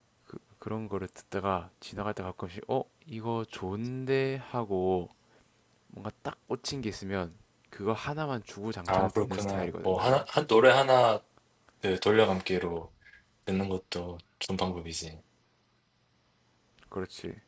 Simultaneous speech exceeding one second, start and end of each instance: 8.9-10.2

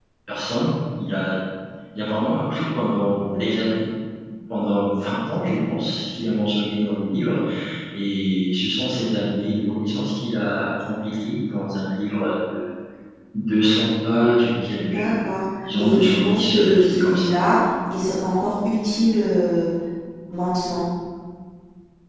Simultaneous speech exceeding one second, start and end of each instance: 15.8-17.3

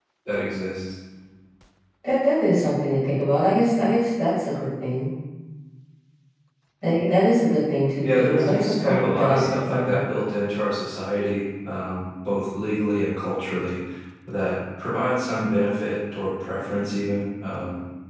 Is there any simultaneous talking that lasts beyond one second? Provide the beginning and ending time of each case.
8.0-10.0

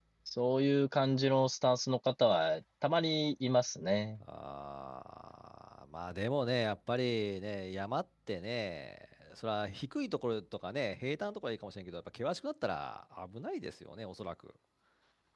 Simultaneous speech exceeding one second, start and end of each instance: none

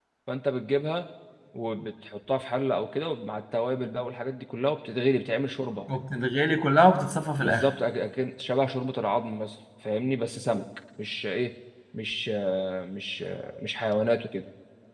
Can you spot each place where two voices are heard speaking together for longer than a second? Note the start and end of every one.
none

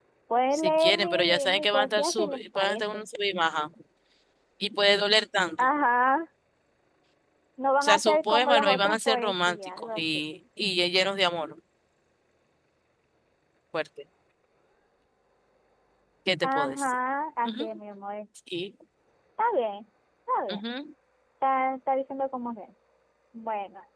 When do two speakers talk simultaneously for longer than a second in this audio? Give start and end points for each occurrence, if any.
0.5-3.0, 7.8-10.2

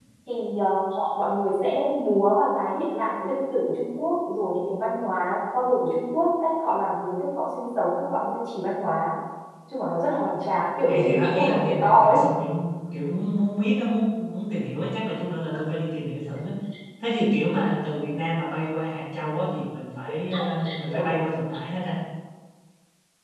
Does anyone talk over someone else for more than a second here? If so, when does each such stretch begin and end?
10.8-12.2

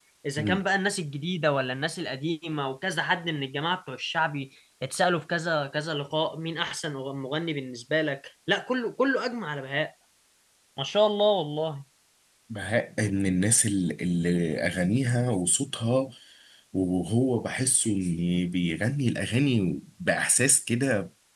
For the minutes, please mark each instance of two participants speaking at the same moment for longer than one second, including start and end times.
none

